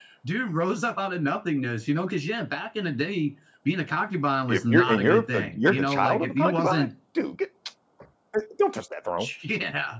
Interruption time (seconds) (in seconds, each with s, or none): 4.5 s